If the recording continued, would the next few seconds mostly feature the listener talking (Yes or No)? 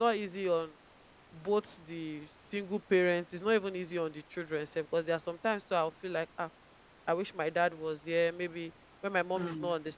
No